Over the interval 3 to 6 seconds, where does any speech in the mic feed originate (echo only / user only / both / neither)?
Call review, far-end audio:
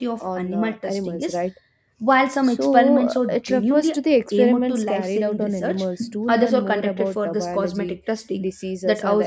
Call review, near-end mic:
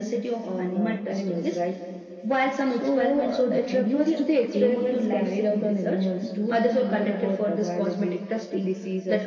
echo only